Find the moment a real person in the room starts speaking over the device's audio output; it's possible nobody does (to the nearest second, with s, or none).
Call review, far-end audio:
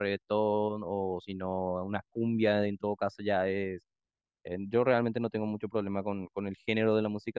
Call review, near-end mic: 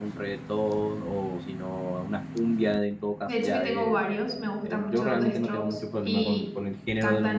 3 s